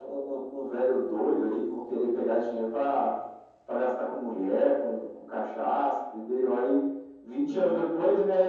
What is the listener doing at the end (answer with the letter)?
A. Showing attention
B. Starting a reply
A